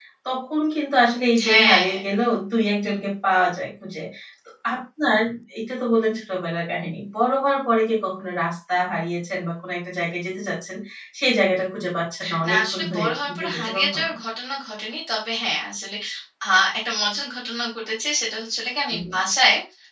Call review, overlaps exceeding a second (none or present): present